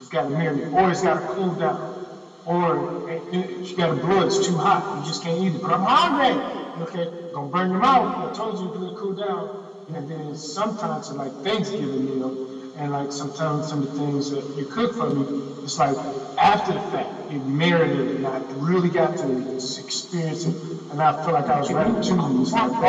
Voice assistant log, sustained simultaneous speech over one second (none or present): present